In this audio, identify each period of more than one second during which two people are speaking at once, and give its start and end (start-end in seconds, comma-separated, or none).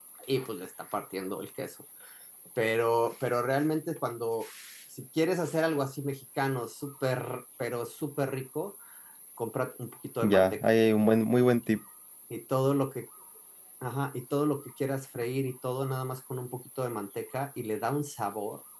none